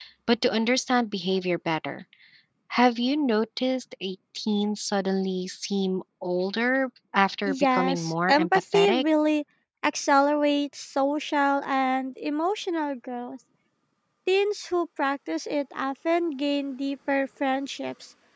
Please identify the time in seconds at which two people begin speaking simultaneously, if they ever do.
7.5 s

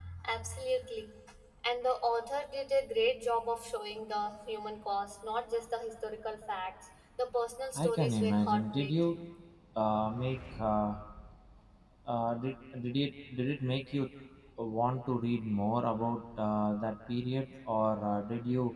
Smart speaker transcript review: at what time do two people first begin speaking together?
7.8 s

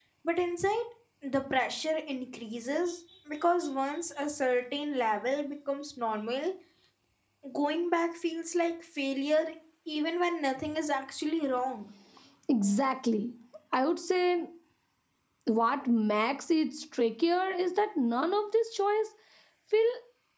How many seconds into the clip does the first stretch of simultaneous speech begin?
none

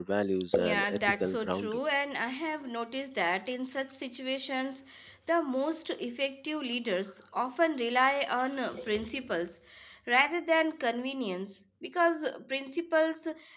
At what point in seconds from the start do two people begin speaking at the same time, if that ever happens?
0.6 s

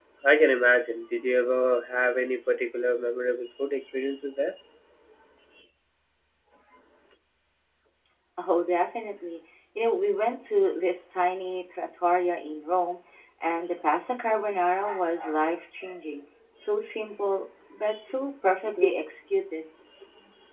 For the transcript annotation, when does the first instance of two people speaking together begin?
none

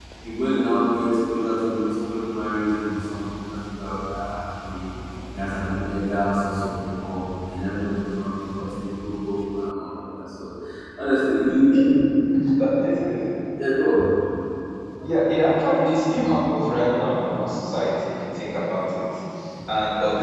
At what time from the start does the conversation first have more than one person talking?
none

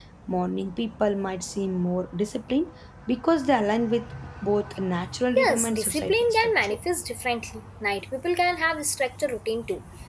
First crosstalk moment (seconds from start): 5.4 s

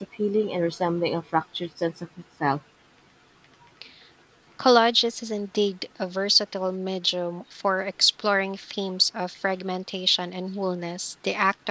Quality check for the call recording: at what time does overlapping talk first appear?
none

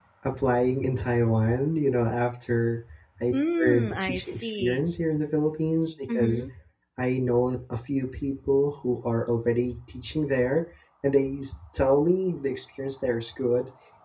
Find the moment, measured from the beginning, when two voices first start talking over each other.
3.6 s

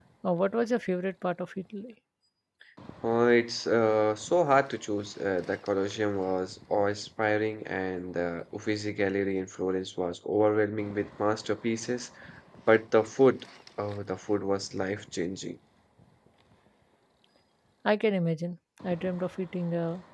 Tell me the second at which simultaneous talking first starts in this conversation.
none

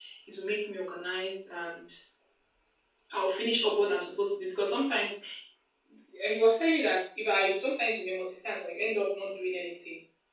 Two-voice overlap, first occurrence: none

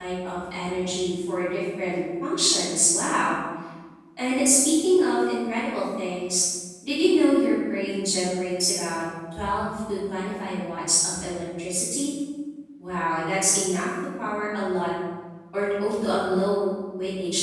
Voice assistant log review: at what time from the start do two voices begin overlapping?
none

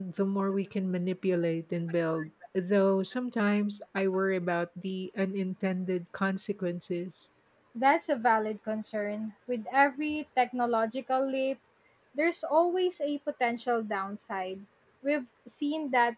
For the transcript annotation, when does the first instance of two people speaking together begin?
none

